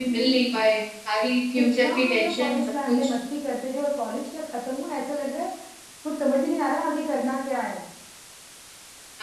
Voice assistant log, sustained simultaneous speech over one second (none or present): present